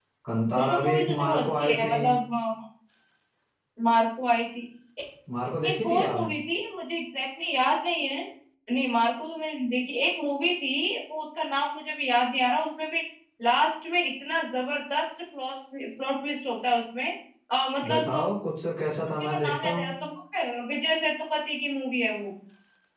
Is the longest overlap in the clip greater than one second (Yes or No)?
Yes